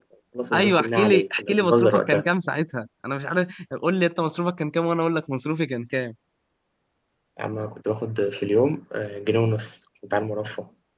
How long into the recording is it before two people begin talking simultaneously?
0.5 s

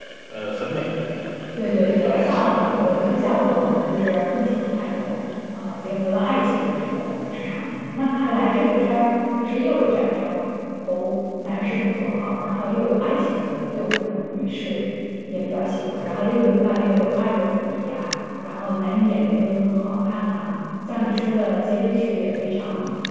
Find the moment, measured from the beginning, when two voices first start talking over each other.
1.6 s

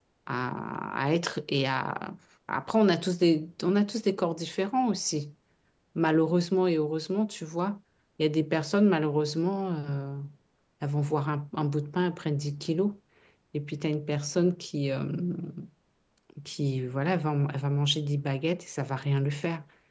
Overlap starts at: none

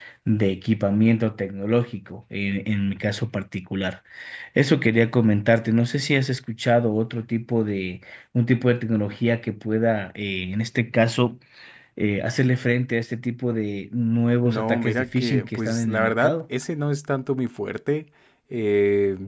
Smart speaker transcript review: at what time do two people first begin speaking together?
14.4 s

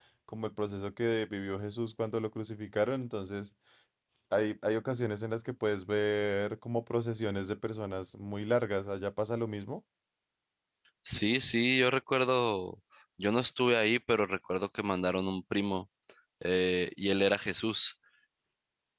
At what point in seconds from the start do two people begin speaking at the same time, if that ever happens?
none

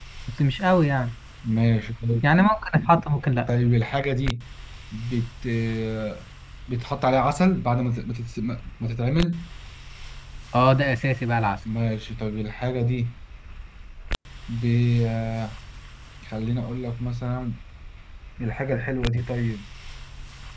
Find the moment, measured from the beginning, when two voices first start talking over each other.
none

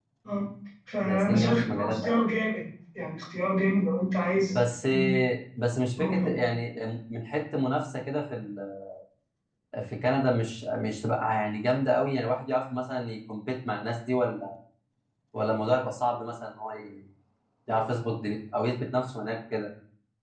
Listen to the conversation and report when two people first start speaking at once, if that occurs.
1.0 s

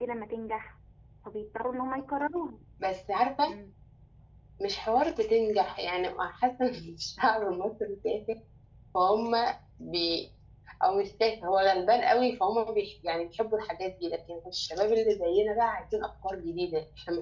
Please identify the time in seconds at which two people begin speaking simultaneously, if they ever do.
none

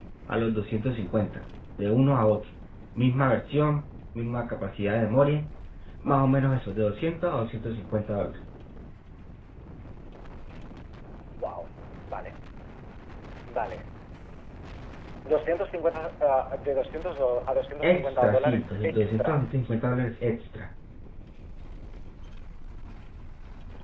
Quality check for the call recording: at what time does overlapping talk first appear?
17.8 s

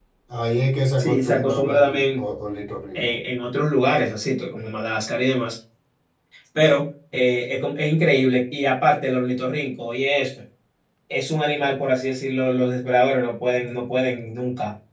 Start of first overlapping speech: 1.0 s

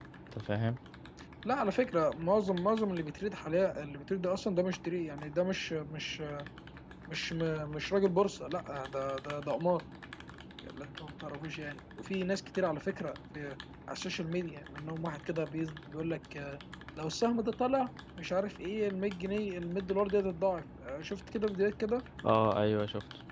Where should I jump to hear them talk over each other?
none

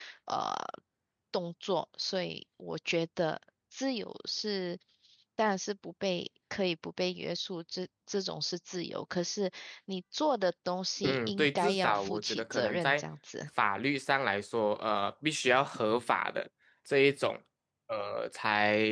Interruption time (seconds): 11.0 s

